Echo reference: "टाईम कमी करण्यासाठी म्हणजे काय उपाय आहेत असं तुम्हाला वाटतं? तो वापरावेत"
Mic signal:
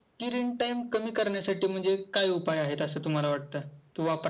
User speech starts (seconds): none

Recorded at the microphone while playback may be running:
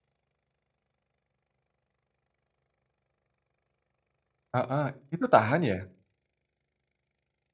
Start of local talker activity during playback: 4.5 s

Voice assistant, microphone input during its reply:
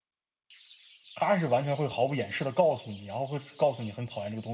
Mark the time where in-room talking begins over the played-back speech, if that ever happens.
1.1 s

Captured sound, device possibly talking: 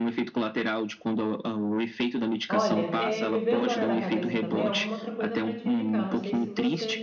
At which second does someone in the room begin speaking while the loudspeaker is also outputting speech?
2.5 s

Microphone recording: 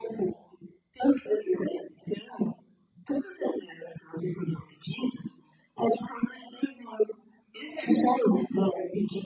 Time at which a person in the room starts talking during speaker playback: none

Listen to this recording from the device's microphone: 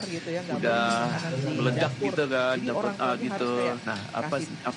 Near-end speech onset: 0.5 s

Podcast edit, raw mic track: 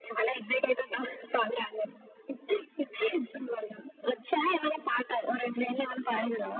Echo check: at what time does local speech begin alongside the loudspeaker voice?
none

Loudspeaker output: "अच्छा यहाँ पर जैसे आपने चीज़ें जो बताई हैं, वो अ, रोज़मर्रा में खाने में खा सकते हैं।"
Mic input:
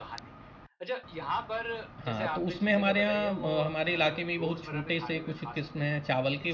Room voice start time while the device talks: 2.0 s

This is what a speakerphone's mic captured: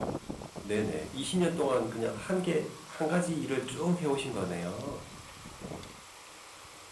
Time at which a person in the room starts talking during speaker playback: 0.6 s

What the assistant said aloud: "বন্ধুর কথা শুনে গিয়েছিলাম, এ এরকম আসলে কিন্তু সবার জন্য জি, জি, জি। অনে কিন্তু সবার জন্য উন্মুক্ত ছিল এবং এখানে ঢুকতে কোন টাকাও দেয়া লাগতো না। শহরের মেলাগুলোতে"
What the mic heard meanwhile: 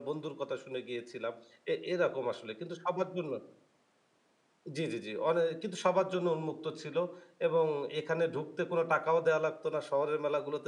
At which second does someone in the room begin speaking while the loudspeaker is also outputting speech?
none

